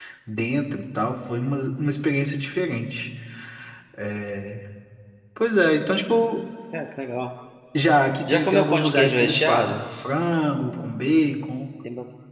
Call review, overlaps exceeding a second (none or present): present